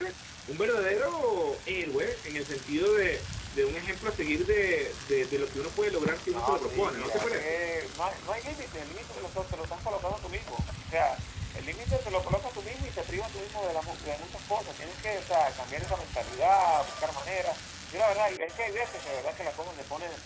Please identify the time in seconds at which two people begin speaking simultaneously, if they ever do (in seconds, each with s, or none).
6.3 s